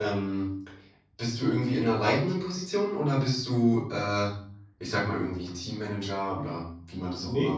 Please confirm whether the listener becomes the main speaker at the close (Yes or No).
Yes